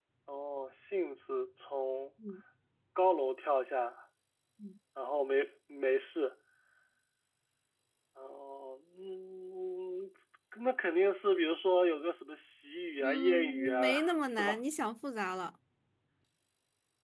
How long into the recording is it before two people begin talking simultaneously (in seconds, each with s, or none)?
13.0 s